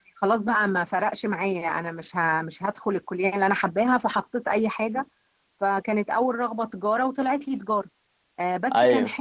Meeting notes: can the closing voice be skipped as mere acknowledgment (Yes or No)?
Yes